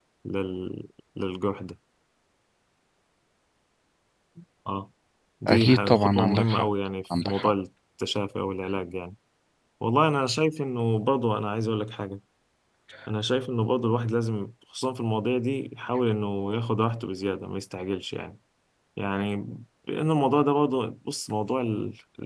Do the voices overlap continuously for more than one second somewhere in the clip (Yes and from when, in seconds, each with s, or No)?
Yes, from 5.5 s